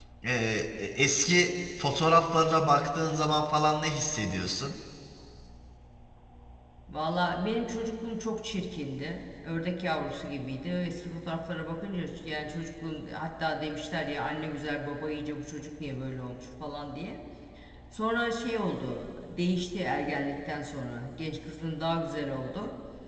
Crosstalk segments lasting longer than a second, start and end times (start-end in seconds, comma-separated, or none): none